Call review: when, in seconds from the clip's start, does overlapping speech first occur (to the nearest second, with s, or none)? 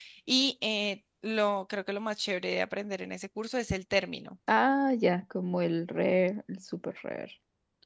none